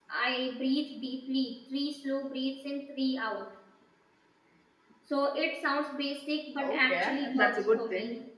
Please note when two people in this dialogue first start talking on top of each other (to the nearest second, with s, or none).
7 s